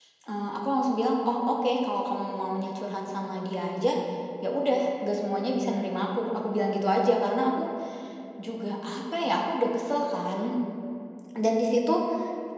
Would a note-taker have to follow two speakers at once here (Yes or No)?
No